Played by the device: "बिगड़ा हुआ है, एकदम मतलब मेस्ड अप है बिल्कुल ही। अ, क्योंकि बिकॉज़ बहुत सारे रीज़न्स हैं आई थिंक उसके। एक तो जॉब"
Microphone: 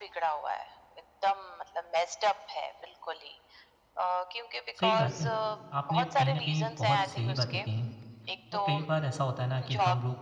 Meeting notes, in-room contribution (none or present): present